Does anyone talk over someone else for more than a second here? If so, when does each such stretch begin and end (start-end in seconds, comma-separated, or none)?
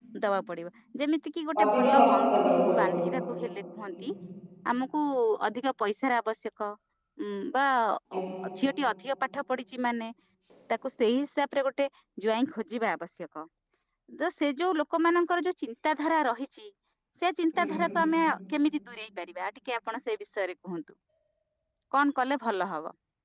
1.6-2.9